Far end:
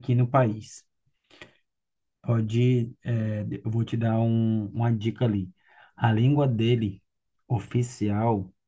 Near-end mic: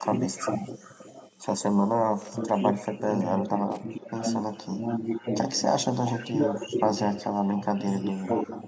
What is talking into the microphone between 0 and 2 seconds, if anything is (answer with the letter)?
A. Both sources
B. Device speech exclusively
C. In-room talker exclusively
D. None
A